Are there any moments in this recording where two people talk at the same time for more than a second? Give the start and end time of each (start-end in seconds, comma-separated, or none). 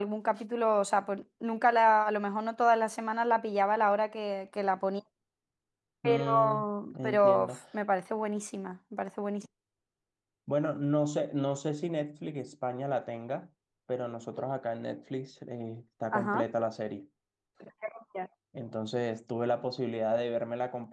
6.0-7.6